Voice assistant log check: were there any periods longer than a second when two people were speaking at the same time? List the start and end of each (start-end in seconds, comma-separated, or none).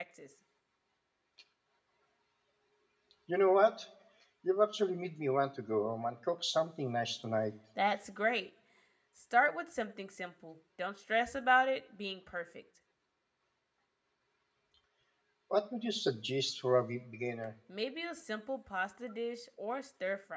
none